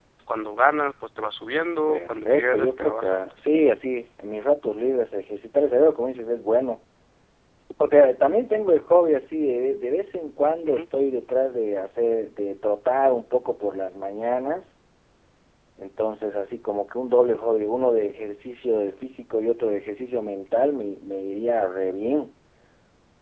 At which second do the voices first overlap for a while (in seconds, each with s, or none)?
1.9 s